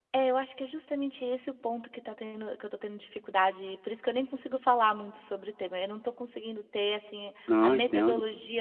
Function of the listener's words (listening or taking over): listening